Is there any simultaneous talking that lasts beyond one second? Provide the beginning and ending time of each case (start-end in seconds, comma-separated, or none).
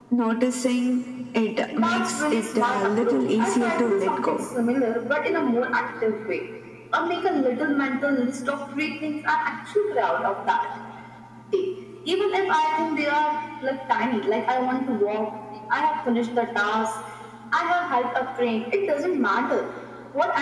1.8-4.5